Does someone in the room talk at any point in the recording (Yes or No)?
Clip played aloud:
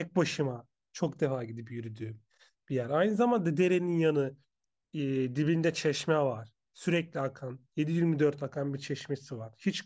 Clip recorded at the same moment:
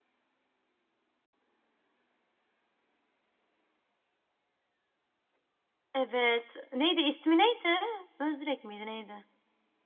Yes